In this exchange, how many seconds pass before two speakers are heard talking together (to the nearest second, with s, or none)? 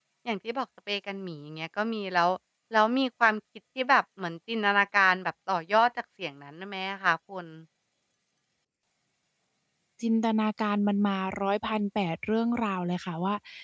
none